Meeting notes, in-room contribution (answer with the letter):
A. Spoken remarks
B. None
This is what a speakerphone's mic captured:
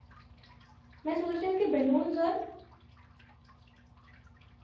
A